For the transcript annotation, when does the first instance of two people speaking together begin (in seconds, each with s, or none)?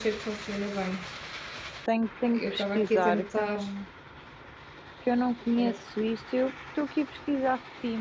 2.3 s